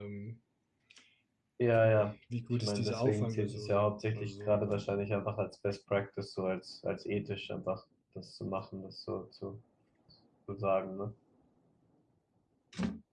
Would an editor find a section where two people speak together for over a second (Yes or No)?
Yes